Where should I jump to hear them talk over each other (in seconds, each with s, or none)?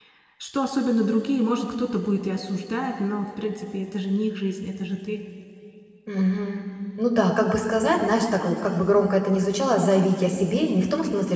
none